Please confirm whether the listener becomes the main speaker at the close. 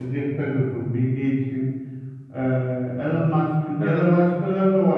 No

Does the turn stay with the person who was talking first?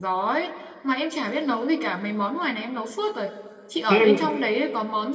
Yes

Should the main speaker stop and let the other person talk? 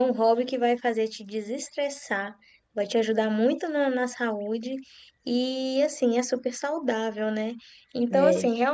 No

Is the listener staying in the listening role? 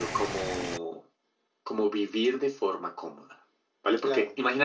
Yes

